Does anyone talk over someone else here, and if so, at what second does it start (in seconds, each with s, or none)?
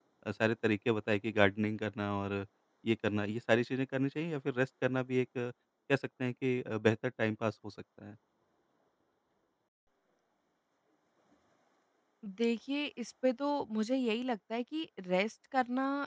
none